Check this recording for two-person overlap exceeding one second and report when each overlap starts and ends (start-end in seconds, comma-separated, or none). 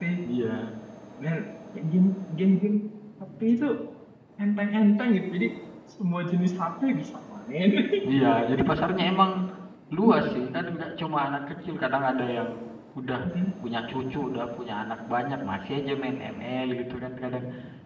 none